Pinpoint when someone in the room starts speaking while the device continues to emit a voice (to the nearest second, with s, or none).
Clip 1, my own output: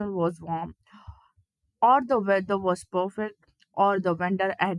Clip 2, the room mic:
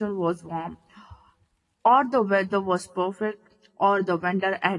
none